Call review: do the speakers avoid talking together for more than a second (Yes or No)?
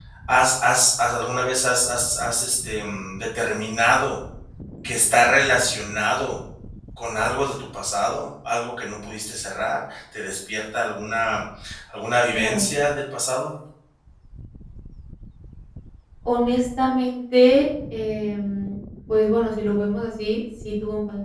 Yes